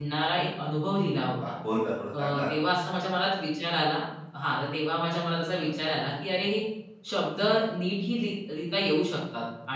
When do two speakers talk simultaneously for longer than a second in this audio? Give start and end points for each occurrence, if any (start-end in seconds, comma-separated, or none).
none